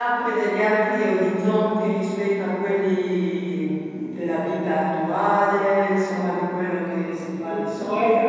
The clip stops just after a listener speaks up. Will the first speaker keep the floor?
No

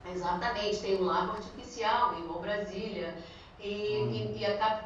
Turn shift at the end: No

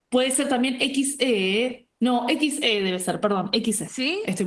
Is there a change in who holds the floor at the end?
Yes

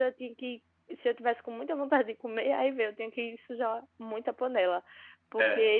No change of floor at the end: Yes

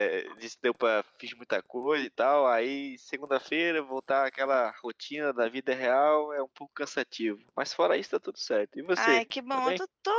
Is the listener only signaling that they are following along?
No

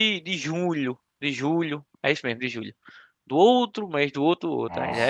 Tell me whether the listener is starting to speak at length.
Yes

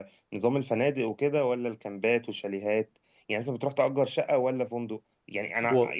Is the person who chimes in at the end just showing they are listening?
Yes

